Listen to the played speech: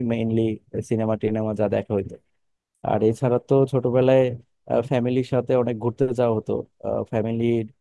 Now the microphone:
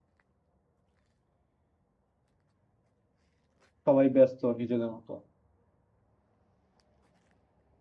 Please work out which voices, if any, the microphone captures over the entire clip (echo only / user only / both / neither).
user only